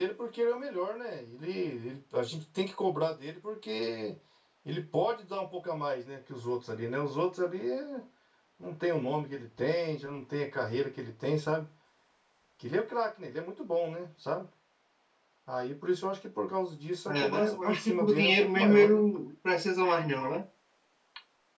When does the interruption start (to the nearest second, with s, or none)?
17 s